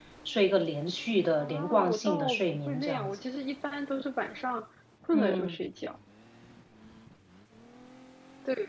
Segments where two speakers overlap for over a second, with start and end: 1.4-3.2

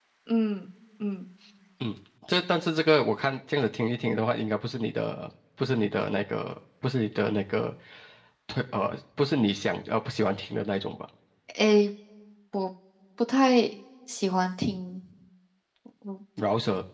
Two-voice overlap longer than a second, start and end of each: none

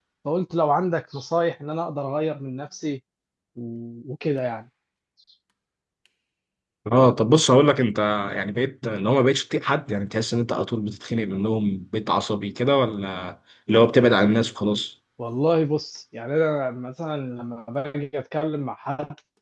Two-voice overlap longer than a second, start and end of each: none

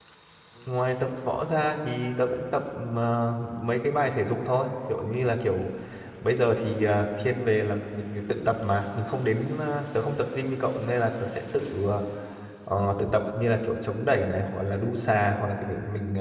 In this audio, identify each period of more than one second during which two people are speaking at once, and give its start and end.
none

